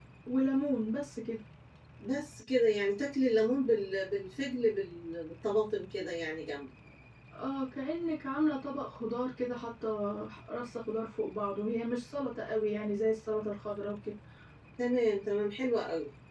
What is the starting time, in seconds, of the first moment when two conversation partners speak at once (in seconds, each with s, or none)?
none